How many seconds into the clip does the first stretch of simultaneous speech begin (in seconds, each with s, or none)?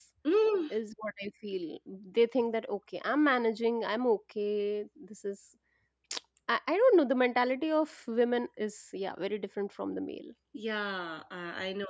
none